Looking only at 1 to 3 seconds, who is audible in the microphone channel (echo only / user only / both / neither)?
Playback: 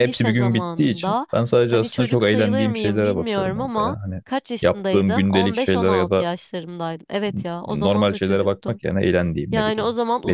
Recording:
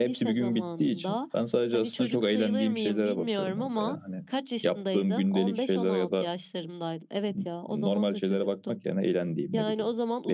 echo only